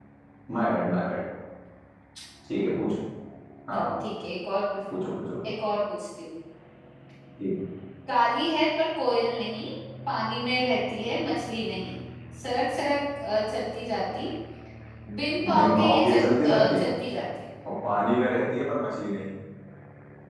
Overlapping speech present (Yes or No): Yes